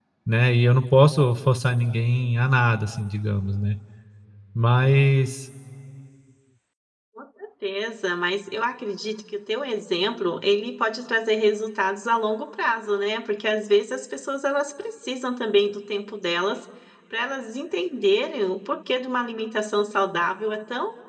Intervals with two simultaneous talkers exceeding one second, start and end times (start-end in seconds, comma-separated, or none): none